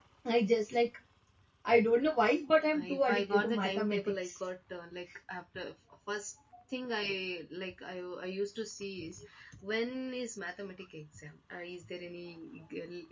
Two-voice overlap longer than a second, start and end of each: 2.7-4.3

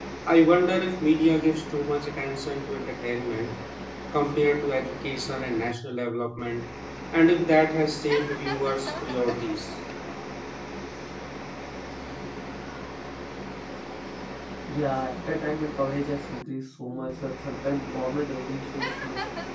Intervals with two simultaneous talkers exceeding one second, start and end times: none

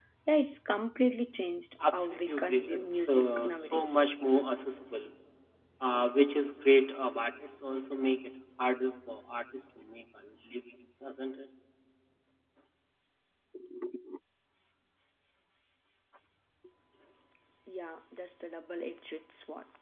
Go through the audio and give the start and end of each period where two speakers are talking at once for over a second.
1.9-4.1

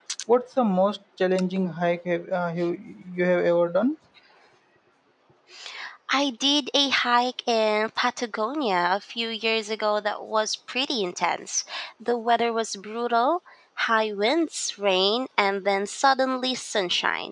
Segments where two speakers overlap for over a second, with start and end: none

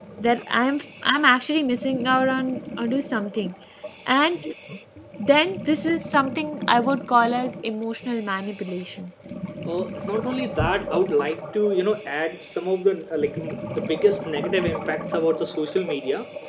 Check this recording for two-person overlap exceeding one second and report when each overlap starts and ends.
none

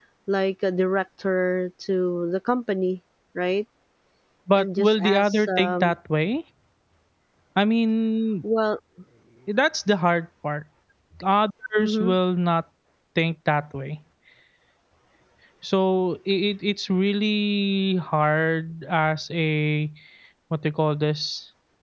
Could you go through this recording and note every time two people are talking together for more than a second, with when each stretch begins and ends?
4.5-6.0

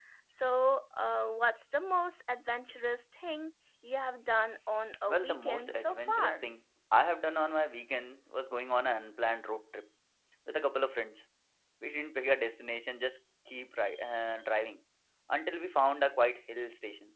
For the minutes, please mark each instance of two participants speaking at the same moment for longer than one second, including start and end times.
5.1-6.5

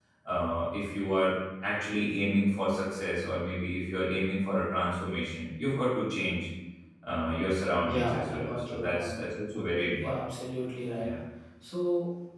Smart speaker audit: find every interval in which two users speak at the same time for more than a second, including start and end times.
7.8-9.2

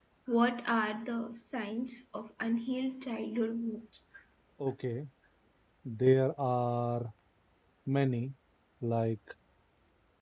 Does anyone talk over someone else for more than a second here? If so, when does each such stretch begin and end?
none

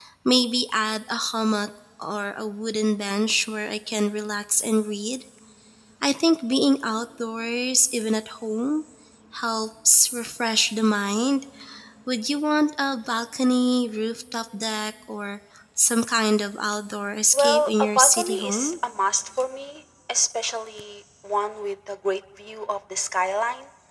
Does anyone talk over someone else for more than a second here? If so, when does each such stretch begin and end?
17.3-18.7

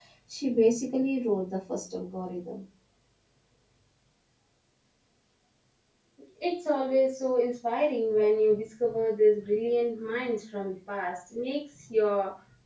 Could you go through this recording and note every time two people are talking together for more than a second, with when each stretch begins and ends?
none

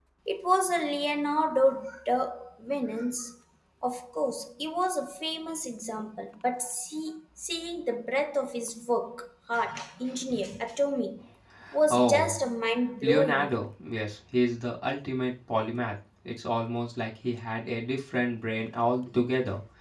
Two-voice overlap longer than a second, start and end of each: none

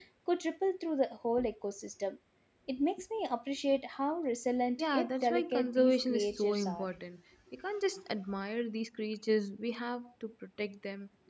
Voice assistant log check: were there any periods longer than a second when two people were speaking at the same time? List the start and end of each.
4.8-6.8

